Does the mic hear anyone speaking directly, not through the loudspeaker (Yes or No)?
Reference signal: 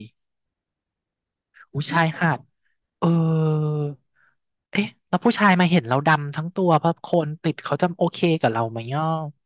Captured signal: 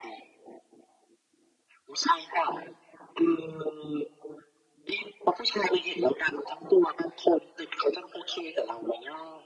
No